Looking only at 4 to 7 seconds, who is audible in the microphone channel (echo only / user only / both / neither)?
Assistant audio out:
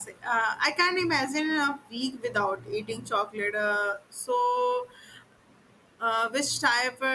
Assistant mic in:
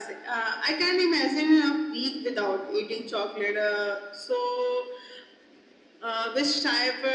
echo only